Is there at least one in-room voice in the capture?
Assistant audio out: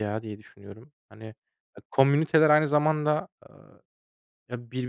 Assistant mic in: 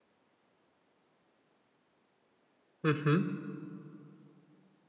Yes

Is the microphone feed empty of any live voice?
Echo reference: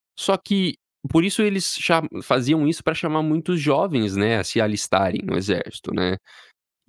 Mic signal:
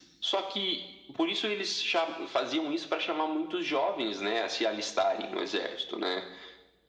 Yes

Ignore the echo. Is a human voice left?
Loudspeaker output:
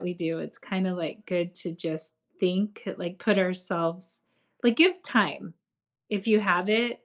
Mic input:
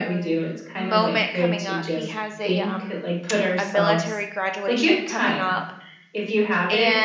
Yes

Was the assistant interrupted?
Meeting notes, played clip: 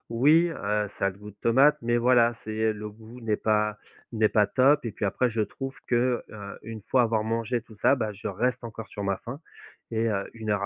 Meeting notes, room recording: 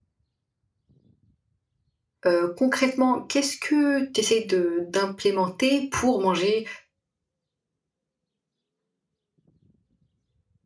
Yes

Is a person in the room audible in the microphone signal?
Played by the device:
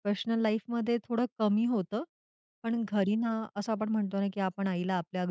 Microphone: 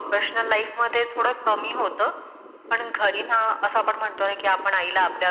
No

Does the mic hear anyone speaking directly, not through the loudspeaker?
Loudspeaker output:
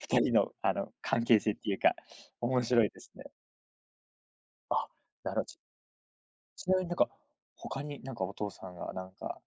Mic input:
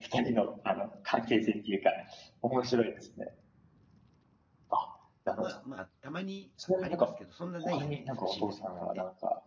Yes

